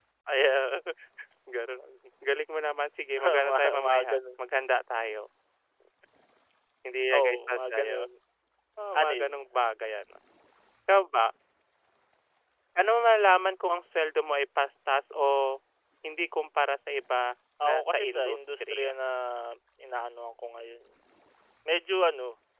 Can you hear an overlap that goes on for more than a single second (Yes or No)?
Yes